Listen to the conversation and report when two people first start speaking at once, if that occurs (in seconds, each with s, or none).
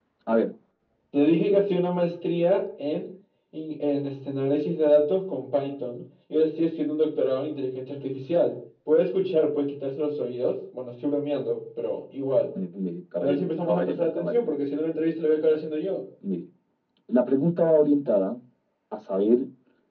13.2 s